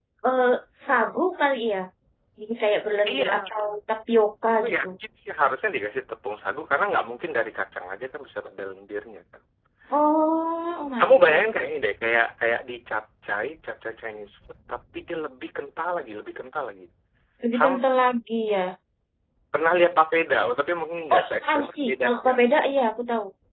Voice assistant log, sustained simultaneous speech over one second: present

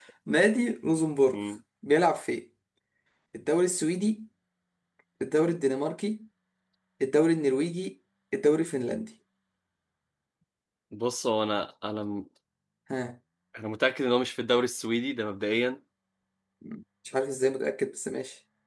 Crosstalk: none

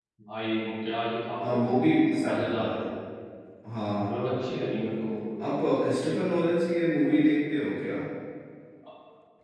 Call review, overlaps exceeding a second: present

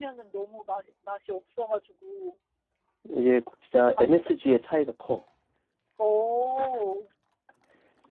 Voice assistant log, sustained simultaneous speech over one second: none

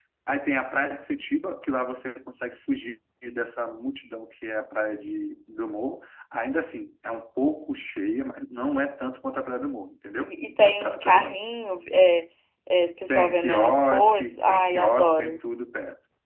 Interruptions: present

